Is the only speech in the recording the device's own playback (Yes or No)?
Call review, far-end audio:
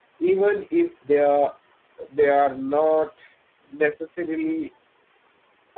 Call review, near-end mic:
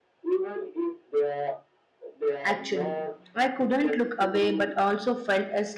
No